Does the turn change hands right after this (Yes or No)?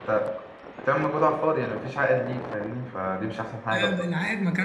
Yes